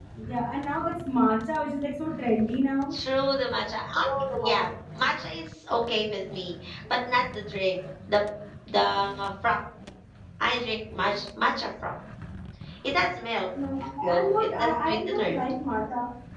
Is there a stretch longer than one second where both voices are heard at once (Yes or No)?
Yes